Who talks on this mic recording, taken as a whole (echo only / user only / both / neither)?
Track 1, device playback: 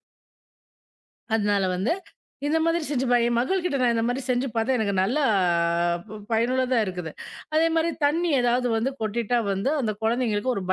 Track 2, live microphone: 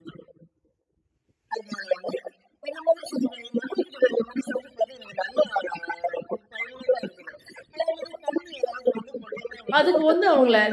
both